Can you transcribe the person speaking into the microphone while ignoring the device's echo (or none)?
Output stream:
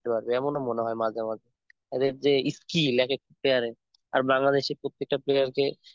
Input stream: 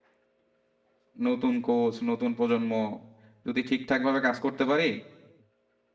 নতুন কোচ নতুন প্রজন্ম যদি ঠিকঠাক ভাবে কাজ করতে পারি